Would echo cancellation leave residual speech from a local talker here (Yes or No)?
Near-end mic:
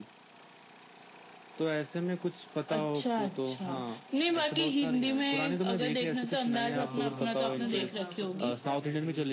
Yes